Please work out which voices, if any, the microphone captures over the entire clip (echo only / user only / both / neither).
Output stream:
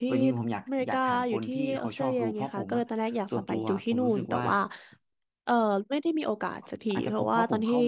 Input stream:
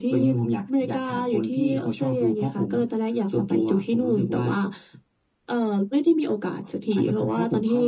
echo only